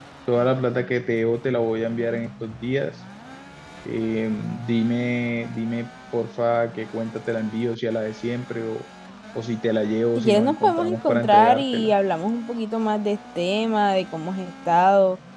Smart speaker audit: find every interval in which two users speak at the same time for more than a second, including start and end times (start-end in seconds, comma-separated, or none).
10.2-11.9